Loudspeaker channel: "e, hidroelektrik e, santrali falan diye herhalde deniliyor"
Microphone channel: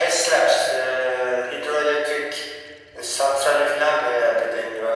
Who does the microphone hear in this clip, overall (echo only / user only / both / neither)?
echo only